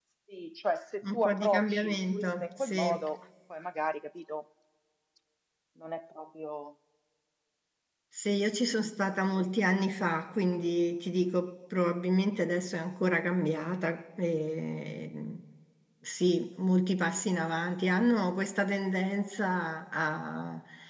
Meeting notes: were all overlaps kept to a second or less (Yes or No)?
No